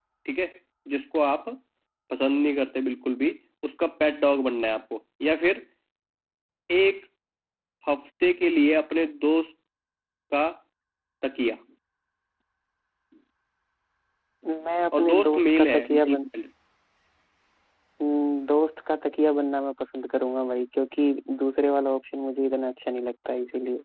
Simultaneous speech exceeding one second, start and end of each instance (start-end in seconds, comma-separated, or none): 14.9-16.3